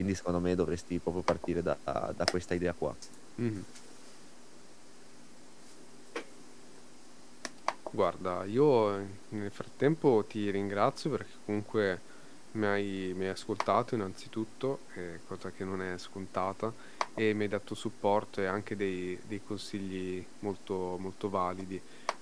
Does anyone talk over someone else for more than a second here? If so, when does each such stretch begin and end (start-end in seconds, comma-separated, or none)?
none